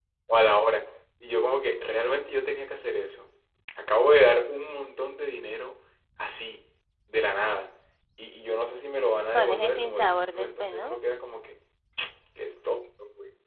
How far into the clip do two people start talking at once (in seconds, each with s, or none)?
9.3 s